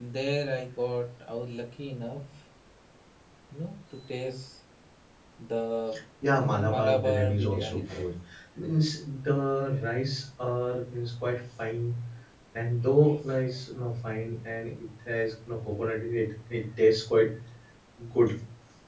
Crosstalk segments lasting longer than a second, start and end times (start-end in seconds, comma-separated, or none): 6.4-8.0